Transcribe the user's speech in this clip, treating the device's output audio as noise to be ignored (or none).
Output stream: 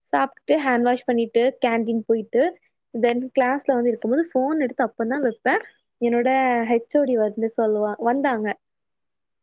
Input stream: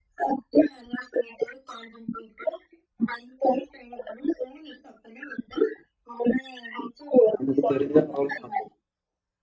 நமக்கு தெரிஞ்ச அவ்ளோதான்